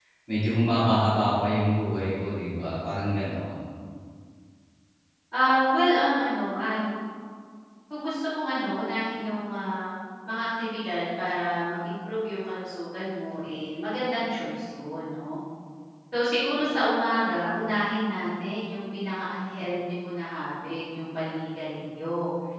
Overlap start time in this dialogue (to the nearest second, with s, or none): none